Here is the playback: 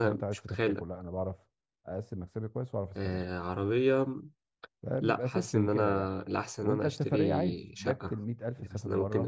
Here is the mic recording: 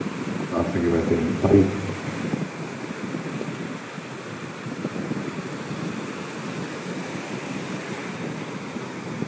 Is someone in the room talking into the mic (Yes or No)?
Yes